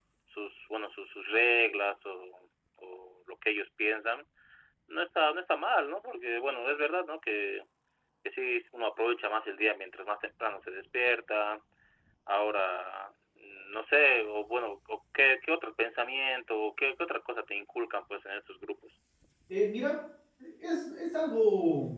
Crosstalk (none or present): none